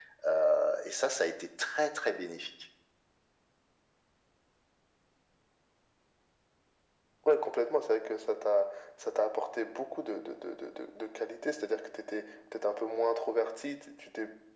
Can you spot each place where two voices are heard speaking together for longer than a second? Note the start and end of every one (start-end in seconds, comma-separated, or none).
none